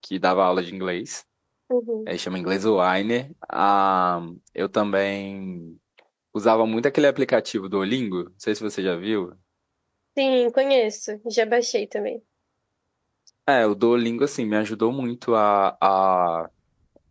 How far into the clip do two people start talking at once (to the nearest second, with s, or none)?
none